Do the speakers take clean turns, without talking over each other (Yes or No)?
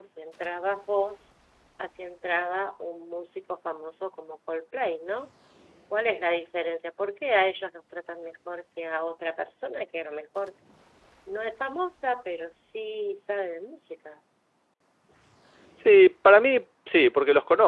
Yes